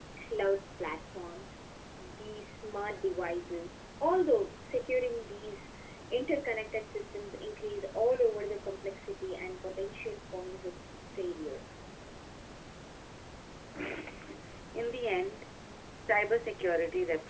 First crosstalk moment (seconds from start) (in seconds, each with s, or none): none